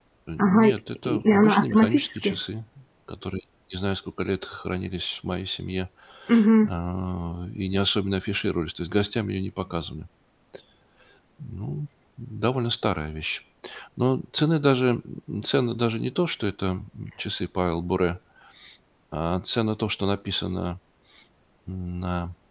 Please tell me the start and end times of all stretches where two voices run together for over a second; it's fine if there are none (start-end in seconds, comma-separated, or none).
1.1-2.4